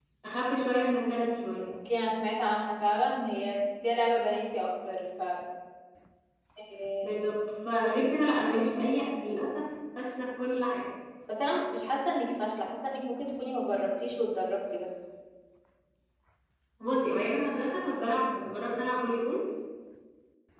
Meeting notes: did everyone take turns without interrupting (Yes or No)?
Yes